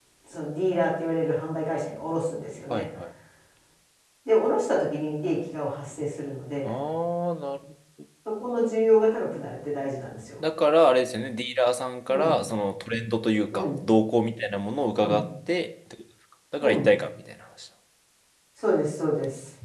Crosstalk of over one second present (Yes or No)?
No